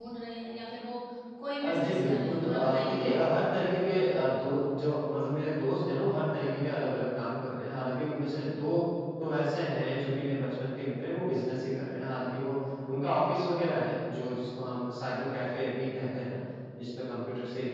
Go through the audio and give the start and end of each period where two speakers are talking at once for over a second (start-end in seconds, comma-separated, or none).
1.6-3.0